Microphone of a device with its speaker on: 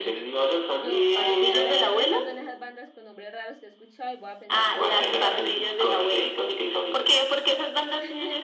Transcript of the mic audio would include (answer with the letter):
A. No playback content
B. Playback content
B